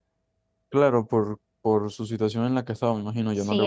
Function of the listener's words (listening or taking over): taking over